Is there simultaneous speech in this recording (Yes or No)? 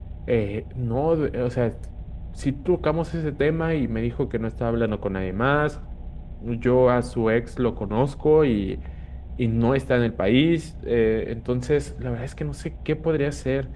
No